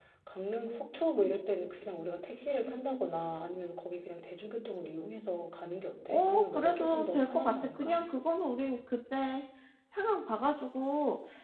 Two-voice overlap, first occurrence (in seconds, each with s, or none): 6.1 s